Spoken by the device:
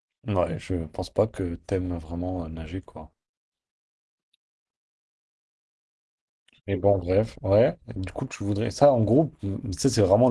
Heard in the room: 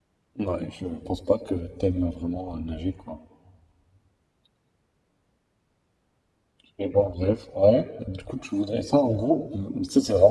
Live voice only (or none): none